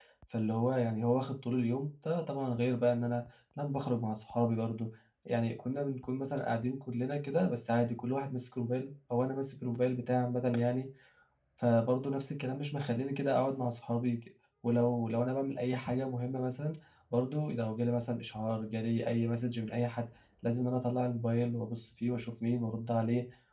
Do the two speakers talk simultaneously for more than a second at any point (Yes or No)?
No